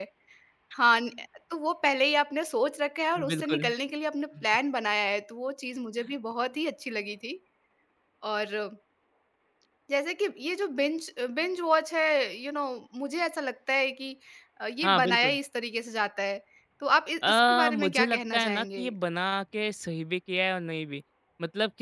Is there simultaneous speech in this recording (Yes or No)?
Yes